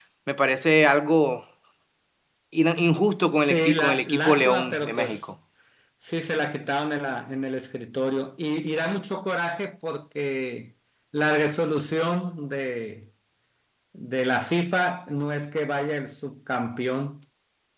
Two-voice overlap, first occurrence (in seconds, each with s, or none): 3.5 s